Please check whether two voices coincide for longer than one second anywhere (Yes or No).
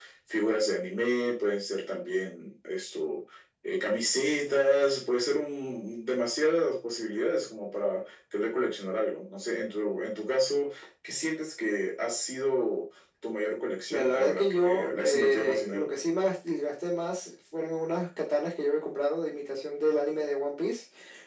Yes